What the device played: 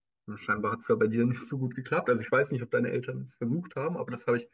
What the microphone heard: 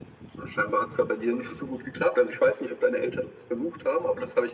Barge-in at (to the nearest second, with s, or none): none